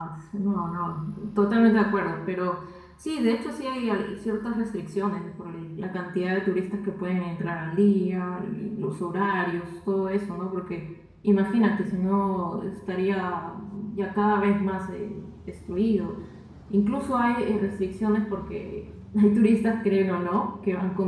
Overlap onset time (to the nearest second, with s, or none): none